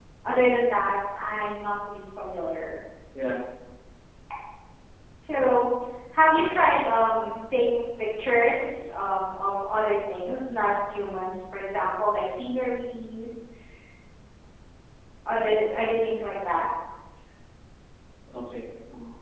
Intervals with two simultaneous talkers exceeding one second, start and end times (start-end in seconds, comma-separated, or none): none